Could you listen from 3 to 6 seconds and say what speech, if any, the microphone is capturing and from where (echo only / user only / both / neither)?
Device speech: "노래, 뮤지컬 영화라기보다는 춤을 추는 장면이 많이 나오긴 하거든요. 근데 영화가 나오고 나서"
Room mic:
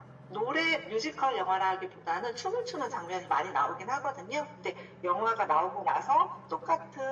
echo only